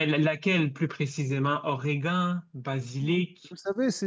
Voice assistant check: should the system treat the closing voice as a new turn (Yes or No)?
Yes